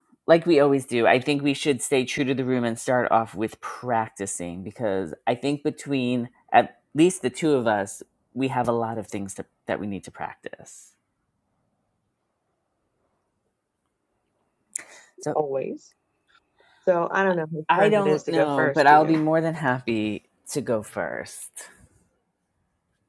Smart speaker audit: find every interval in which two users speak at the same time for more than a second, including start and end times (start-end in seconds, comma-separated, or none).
17.9-19.2